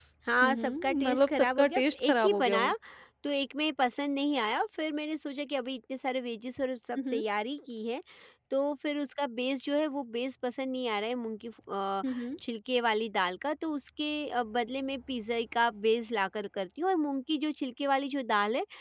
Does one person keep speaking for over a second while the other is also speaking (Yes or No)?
Yes